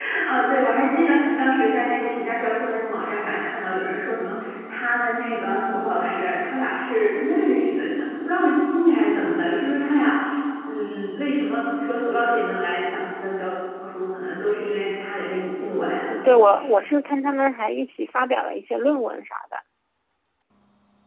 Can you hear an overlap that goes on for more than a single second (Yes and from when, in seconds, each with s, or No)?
No